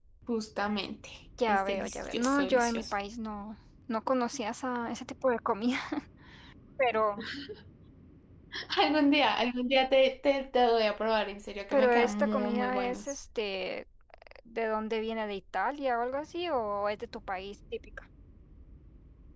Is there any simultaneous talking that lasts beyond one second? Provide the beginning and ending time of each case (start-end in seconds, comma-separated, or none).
1.5-2.9, 11.7-13.1